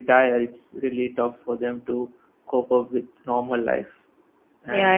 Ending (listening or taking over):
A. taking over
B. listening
A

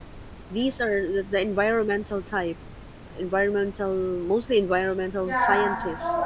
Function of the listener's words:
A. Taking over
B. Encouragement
A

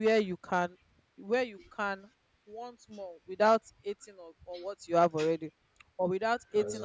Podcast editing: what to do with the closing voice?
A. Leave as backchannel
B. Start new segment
A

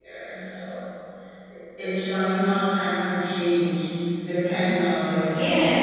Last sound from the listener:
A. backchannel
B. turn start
B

